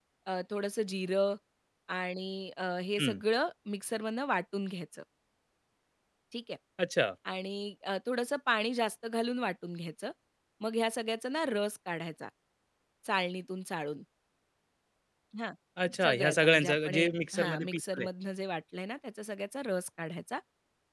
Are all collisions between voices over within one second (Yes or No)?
No